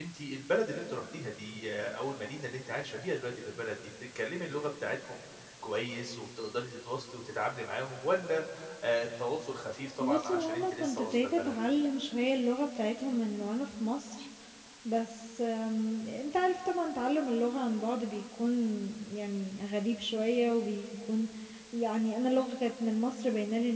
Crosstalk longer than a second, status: present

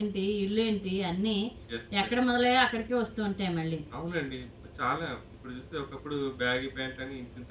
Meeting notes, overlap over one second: none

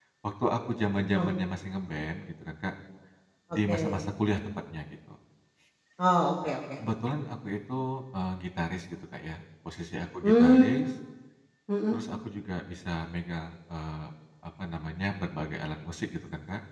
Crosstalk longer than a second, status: none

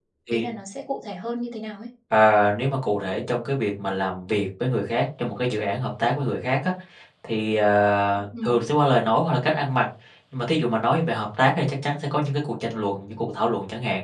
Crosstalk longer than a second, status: none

